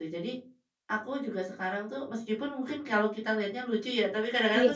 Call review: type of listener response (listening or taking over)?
listening